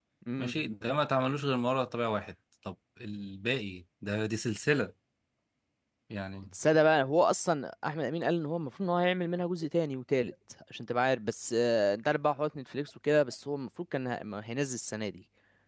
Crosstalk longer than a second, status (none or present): none